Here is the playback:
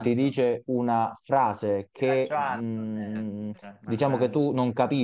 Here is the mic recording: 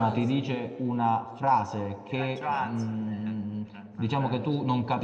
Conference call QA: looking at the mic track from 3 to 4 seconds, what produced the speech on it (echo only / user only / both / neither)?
echo only